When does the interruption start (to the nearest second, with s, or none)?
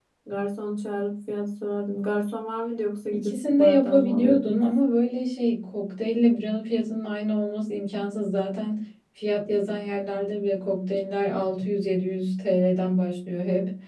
3 s